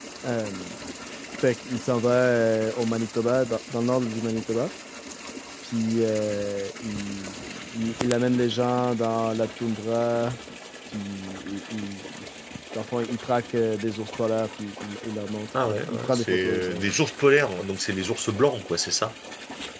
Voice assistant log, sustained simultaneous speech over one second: present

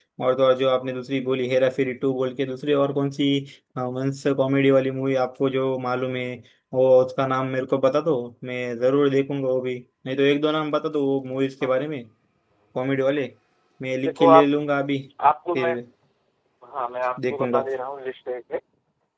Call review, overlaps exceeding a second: none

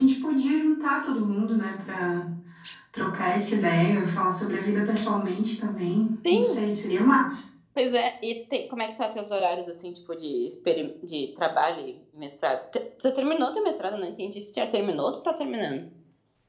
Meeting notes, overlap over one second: none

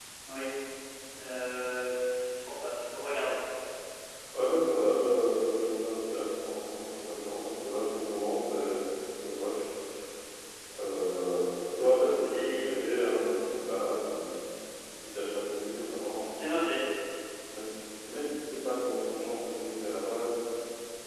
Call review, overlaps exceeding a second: none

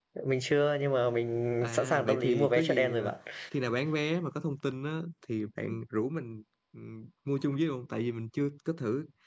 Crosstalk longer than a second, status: present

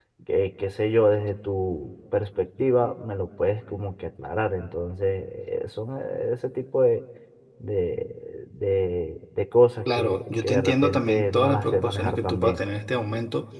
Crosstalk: present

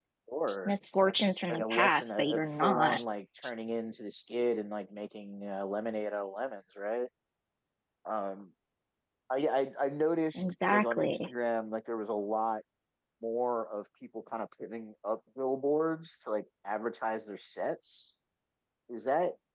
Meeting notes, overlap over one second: present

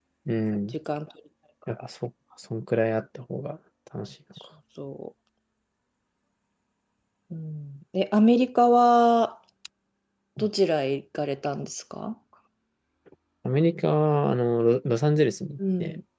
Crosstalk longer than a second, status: none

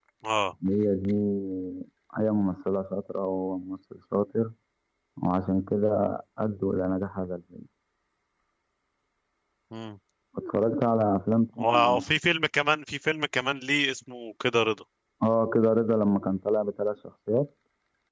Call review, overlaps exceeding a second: none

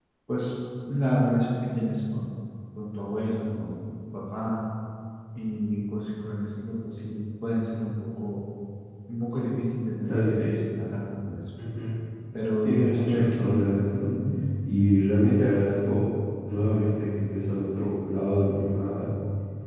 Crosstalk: present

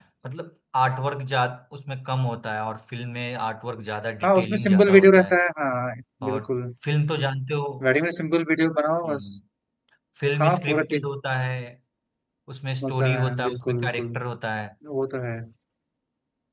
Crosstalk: present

